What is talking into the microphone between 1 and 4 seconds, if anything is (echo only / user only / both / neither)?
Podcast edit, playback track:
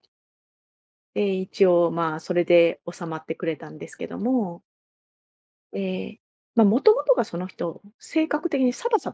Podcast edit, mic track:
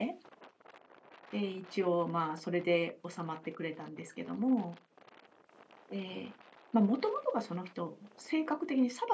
echo only